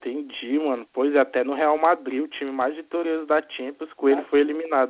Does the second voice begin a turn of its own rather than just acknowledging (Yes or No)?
Yes